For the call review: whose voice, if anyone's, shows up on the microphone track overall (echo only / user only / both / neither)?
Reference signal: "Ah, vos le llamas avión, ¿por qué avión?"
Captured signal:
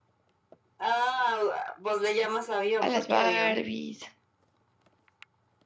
both